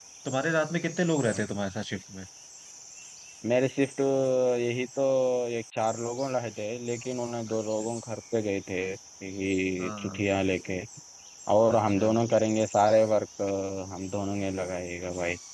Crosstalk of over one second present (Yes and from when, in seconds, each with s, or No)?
No